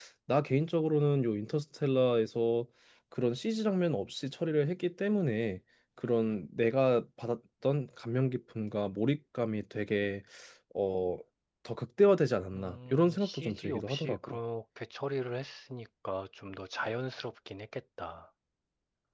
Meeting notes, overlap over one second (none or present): present